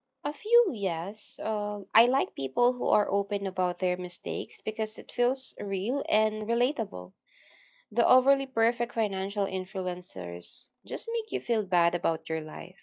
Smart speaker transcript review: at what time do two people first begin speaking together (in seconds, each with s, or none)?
none